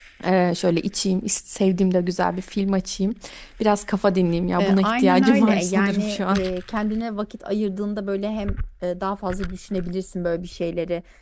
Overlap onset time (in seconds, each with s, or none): 4.6 s